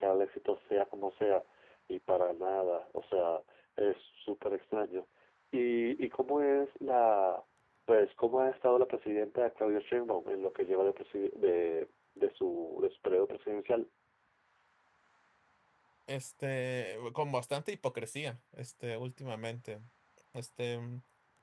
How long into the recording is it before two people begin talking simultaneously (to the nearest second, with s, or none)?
none